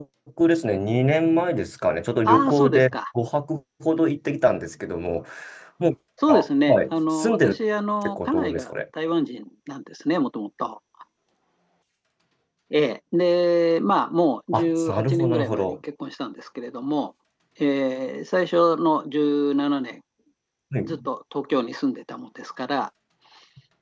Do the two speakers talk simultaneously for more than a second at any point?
Yes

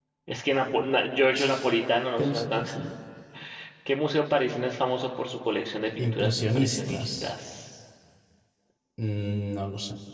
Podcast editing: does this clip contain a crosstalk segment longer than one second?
Yes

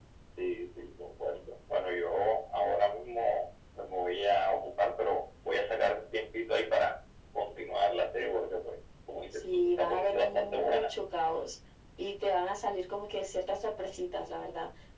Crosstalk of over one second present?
Yes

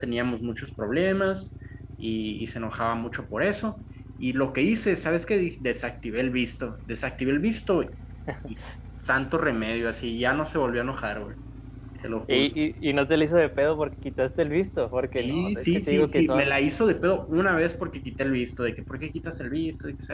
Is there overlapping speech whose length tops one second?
Yes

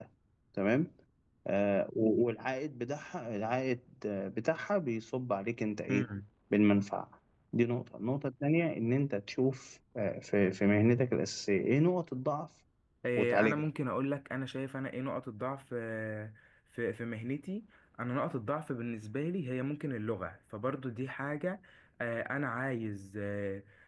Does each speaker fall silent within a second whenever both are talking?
Yes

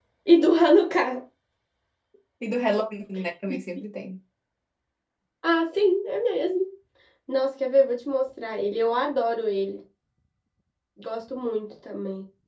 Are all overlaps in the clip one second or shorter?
Yes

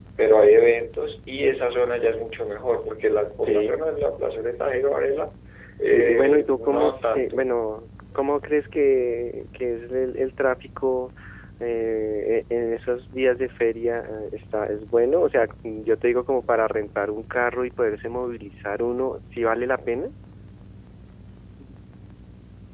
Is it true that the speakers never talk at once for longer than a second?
No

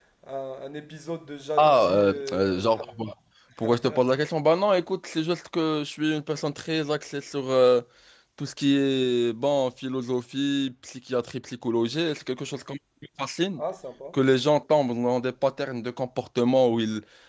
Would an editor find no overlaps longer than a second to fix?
No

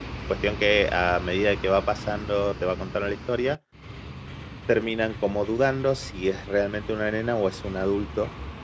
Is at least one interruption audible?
No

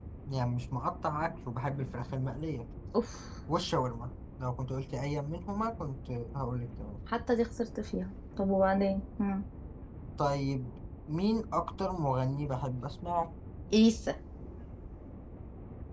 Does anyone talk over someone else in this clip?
No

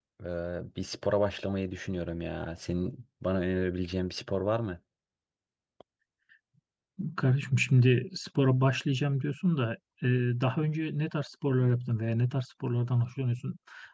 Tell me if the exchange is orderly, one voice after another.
Yes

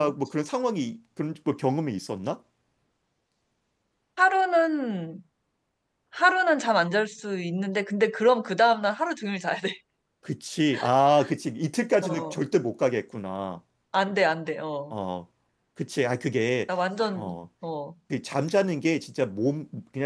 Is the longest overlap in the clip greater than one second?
No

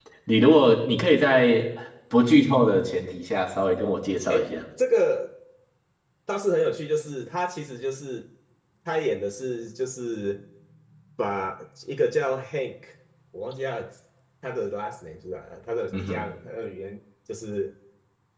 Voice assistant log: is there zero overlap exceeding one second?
Yes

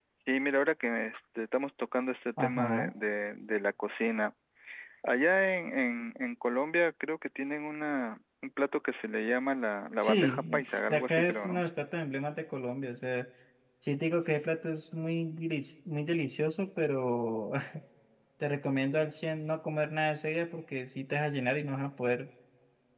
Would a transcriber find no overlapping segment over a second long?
No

